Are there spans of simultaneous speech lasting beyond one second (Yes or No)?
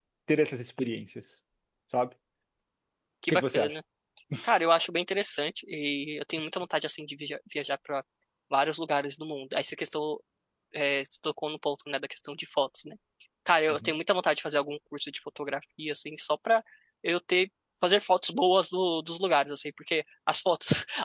No